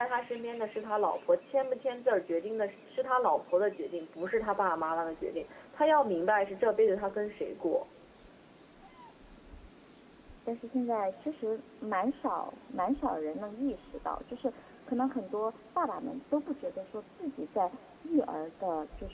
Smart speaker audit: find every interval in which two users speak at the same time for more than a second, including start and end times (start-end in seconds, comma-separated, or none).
none